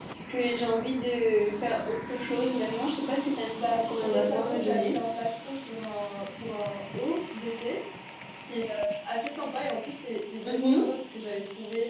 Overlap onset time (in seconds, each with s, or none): 3.5 s